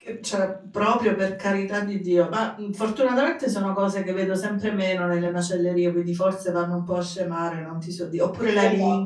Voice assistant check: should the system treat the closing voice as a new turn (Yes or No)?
No